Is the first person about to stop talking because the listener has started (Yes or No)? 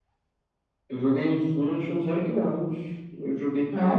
No